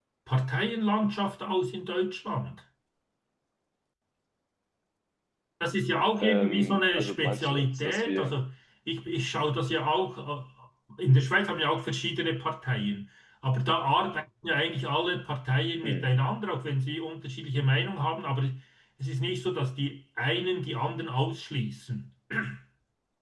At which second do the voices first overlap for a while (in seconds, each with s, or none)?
6.2 s